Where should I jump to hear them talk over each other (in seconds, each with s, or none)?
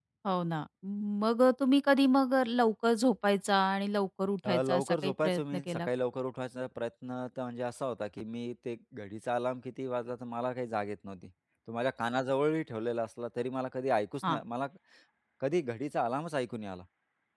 4.4 s